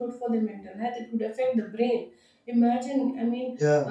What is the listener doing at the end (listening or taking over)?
listening